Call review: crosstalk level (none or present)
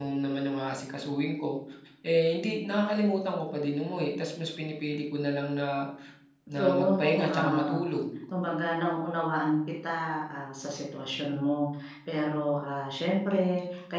present